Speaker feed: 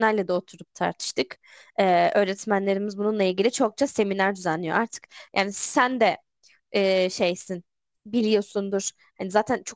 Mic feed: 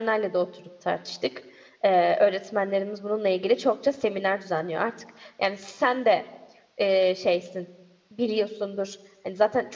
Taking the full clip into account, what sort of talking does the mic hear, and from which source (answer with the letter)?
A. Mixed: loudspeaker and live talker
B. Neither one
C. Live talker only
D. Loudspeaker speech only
D